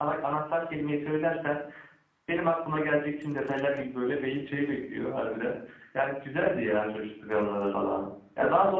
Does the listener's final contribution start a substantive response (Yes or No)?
No